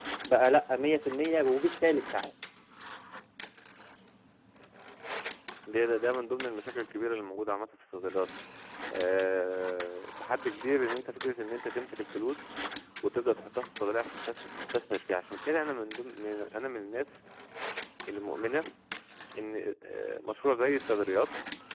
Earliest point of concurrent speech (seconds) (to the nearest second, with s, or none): none